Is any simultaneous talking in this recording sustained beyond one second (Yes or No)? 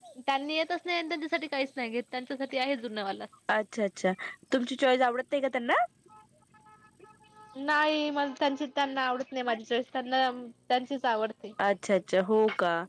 No